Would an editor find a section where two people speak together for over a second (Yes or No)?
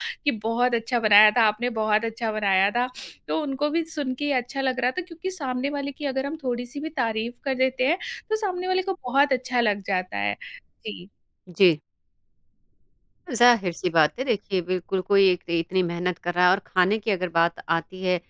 No